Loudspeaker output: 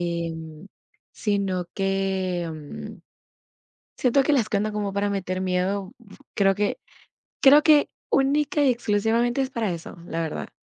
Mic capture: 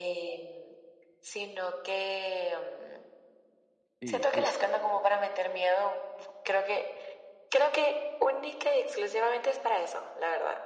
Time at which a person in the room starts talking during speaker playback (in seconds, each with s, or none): 4.0 s